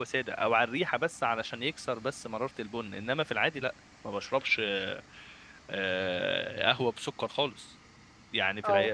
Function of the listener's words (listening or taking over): listening